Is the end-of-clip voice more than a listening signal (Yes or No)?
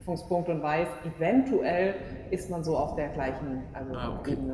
Yes